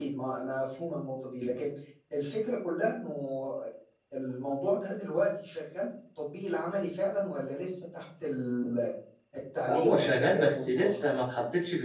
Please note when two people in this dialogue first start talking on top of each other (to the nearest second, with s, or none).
10 s